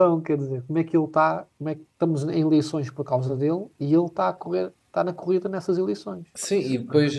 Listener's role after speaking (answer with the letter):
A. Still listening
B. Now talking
B